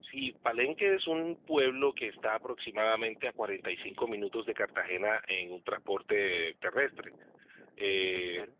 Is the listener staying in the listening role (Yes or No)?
Yes